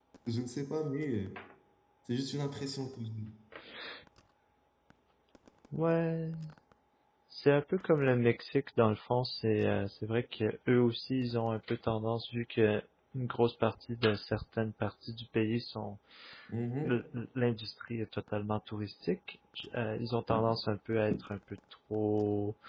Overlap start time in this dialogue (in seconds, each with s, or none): none